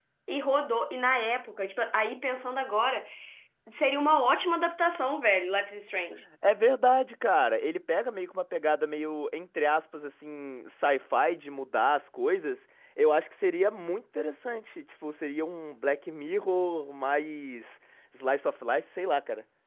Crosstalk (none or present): none